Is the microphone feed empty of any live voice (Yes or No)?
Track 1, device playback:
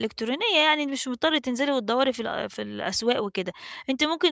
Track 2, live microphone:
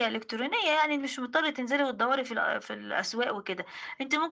Yes